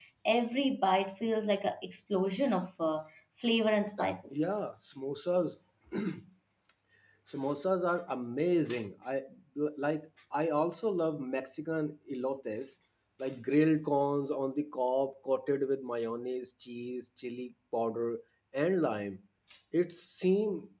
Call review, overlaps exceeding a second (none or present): none